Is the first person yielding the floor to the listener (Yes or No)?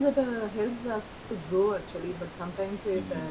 No